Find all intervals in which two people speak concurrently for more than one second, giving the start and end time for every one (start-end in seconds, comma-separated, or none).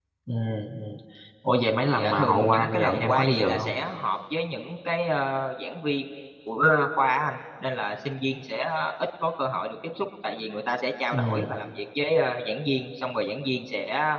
2.0-3.7